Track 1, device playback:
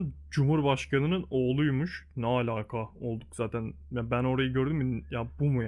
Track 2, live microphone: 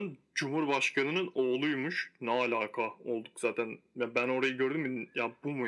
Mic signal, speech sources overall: echo only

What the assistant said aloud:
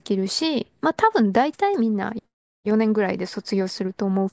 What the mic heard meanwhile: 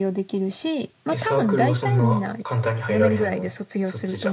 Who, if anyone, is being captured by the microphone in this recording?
both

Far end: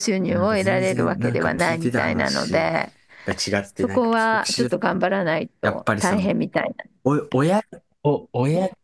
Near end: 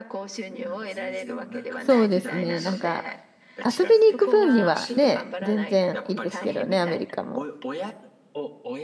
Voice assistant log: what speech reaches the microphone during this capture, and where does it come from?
both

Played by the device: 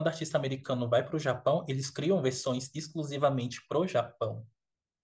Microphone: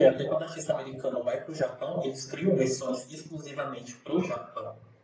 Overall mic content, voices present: echo only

